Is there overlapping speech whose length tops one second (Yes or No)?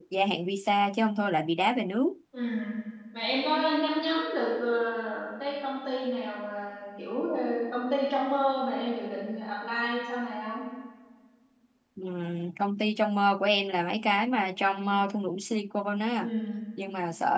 No